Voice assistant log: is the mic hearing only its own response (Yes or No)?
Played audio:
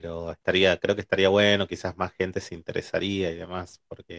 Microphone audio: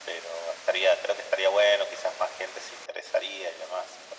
Yes